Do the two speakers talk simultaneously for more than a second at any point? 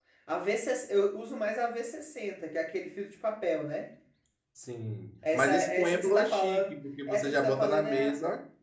Yes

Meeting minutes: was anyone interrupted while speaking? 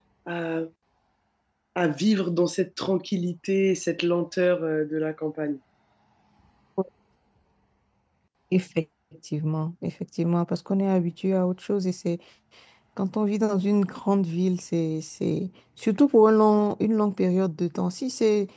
No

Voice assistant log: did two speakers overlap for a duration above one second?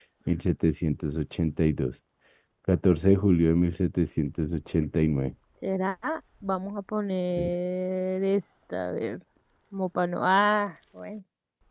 No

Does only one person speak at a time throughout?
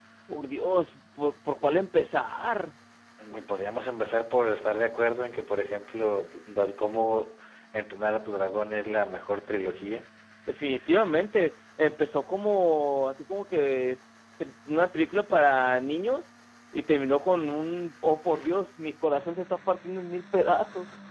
Yes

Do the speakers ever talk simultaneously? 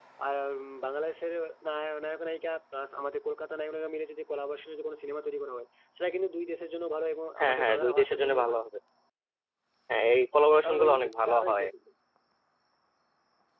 Yes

